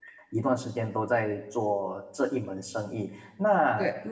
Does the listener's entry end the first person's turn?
No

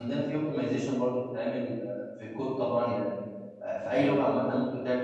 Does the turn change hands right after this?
No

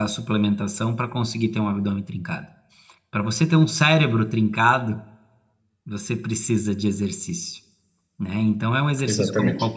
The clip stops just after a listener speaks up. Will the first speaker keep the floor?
Yes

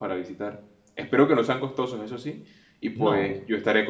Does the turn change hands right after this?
No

